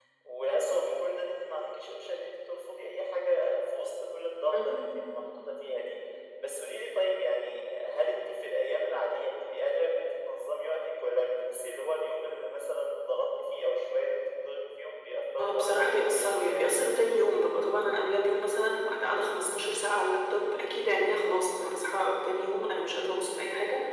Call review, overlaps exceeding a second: present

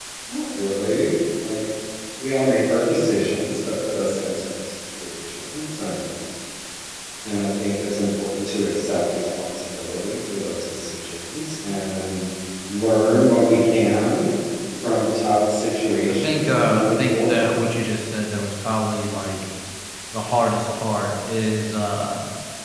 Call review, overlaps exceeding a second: present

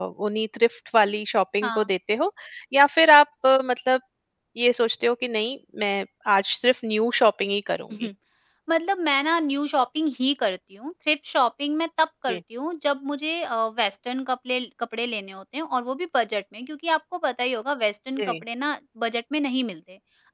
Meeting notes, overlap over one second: none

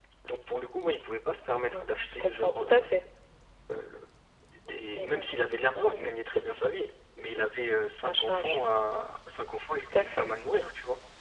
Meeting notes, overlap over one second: present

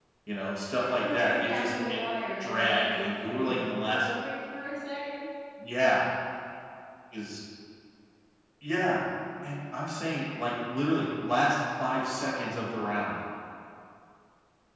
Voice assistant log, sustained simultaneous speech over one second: present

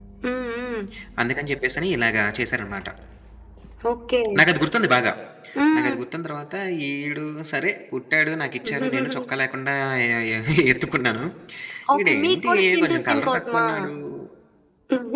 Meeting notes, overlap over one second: present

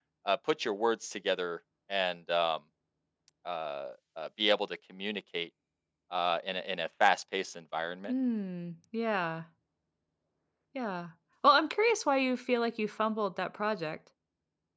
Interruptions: none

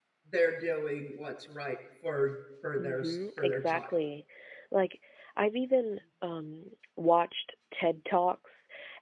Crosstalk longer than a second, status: present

